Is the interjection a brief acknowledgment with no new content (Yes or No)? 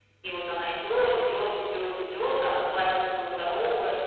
No